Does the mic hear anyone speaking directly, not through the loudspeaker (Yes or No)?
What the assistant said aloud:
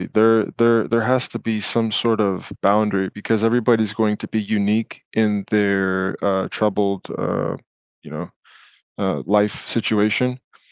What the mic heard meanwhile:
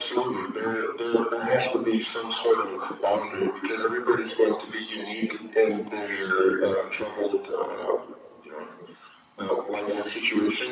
No